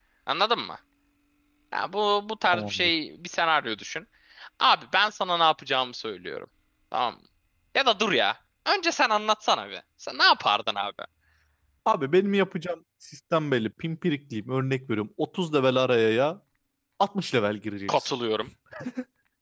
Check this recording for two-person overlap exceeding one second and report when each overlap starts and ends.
none

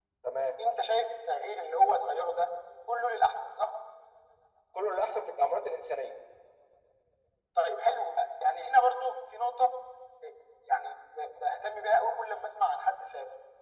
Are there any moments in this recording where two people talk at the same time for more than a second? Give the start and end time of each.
none

